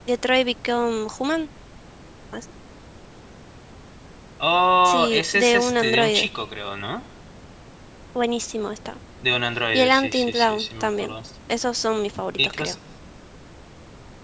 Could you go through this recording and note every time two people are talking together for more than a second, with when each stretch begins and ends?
4.8-6.3, 9.7-11.1

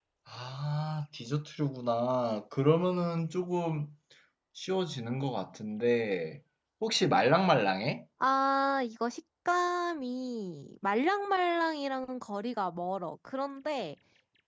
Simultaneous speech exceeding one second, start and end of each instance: none

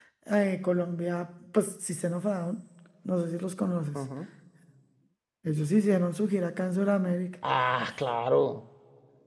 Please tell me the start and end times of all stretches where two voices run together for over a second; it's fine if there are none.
none

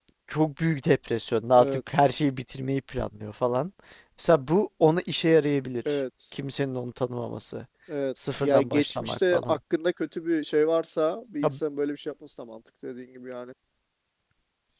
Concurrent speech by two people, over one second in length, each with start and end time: 8.3-9.6

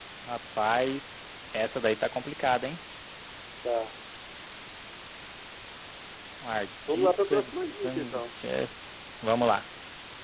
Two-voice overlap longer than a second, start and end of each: 6.9-8.2

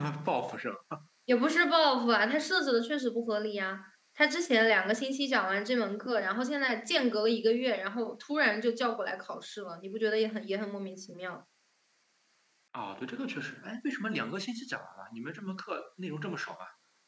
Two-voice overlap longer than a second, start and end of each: none

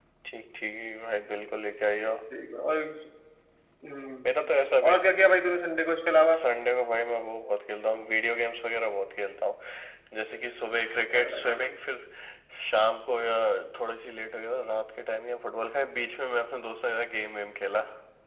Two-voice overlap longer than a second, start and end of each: none

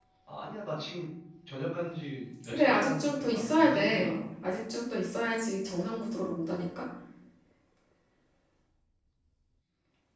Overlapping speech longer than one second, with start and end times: 2.5-4.2

